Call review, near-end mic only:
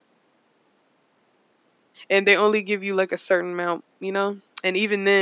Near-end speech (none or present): present